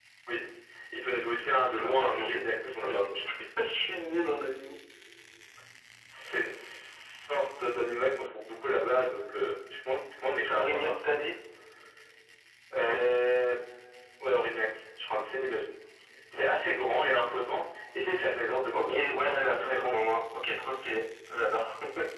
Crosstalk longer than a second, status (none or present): present